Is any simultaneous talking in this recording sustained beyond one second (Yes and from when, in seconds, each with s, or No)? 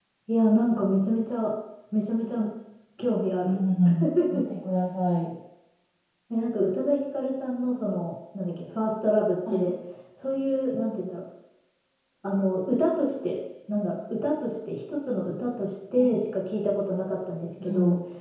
No